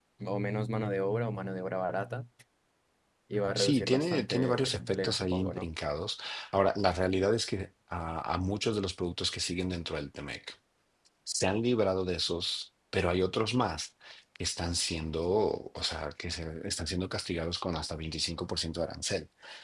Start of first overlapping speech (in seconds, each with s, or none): 3.5 s